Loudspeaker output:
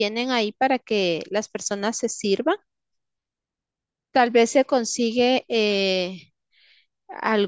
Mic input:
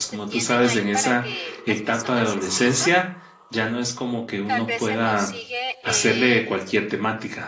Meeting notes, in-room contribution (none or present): present